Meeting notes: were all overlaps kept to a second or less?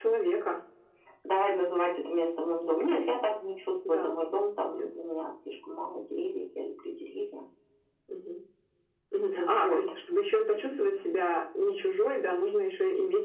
Yes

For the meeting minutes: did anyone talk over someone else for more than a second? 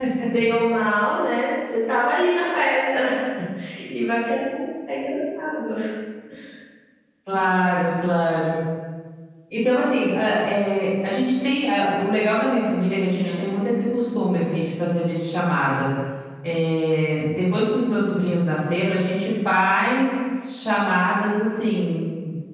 No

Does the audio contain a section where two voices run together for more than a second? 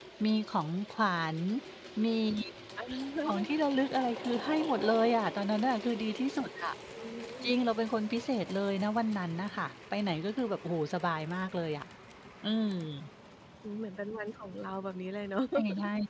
No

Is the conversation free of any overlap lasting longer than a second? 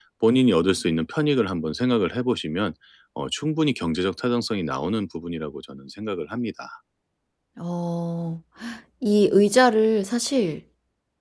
Yes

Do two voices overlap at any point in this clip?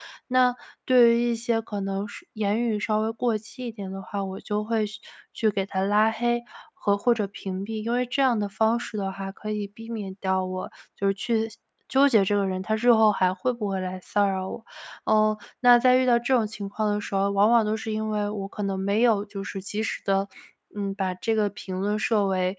No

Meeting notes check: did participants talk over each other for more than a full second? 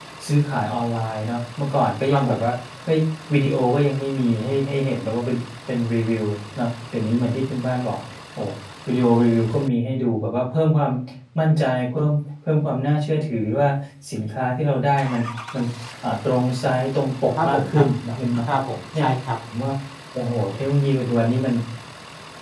No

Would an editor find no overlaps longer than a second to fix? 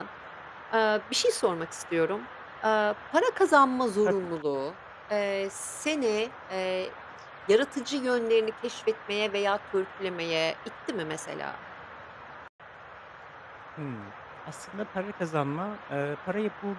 Yes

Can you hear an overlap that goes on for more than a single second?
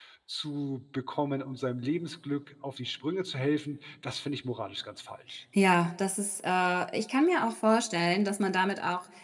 No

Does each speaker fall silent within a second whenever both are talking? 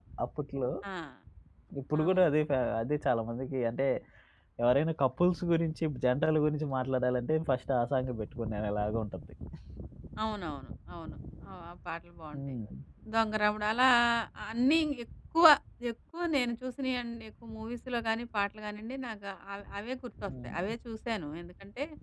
Yes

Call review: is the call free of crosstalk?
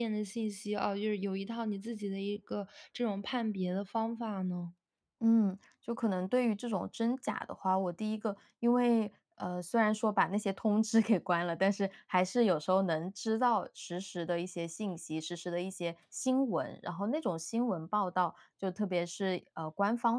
Yes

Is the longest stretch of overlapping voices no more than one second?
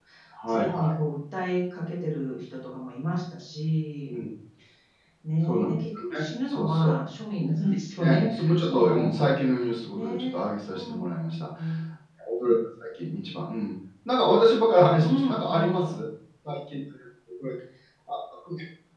No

